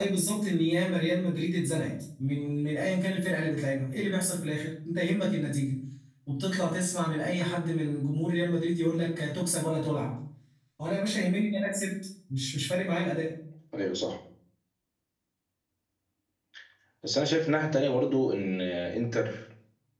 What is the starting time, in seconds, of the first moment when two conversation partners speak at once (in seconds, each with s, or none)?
none